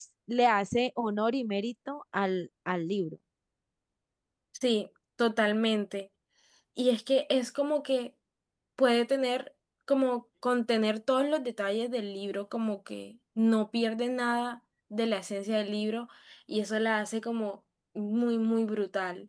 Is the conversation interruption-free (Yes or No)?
Yes